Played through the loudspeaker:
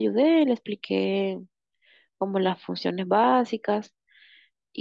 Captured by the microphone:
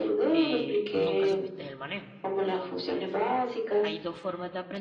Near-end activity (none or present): present